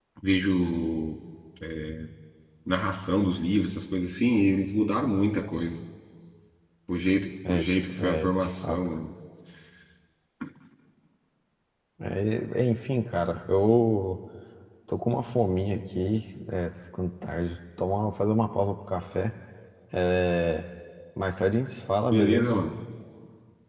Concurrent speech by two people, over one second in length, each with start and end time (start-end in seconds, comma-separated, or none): 7.5-8.8